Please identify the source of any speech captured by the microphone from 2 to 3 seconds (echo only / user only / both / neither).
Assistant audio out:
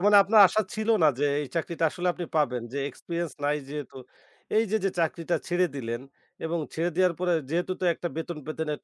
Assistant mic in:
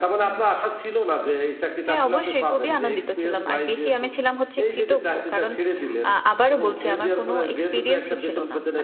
both